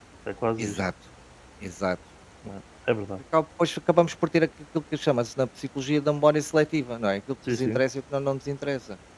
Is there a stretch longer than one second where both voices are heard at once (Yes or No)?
No